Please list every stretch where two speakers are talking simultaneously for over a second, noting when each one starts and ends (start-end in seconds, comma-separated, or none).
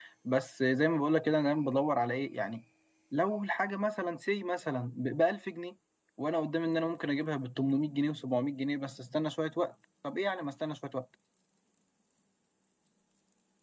none